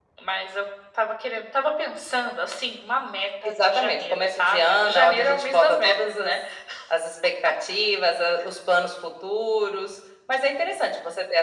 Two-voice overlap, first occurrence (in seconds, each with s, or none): 3.5 s